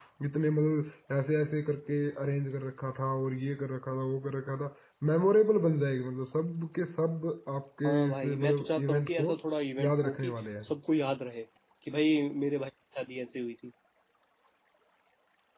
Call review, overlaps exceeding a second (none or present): present